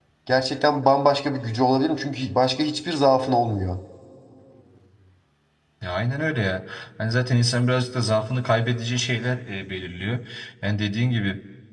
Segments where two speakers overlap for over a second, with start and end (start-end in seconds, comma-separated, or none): none